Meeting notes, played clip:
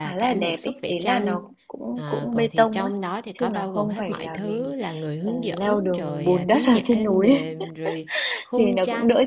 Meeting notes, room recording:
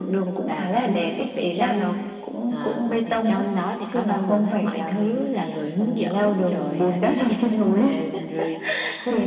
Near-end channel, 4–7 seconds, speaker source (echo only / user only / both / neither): echo only